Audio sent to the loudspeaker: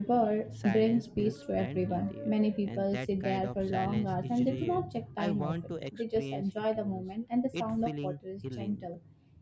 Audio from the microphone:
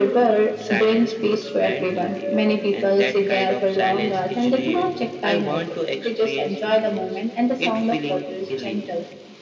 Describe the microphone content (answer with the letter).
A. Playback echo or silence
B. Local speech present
A